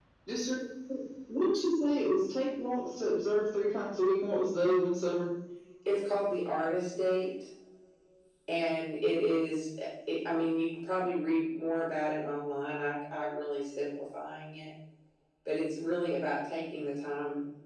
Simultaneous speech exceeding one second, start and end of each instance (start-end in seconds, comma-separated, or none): none